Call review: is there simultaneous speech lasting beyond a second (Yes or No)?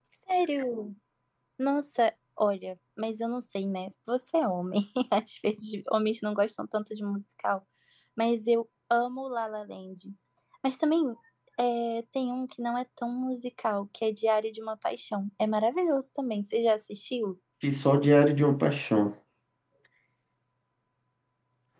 No